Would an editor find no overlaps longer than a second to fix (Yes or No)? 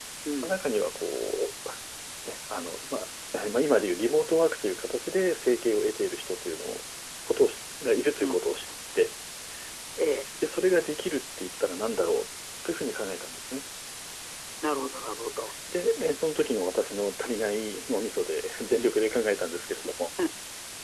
Yes